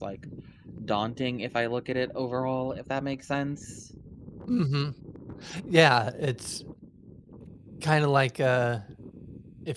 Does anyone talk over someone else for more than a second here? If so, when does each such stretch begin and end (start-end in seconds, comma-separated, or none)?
none